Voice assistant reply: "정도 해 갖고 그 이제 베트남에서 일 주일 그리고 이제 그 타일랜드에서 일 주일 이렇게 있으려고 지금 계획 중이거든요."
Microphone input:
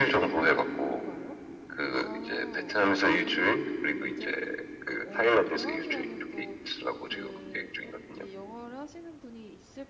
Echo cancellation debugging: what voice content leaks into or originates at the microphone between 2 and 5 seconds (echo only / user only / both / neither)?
both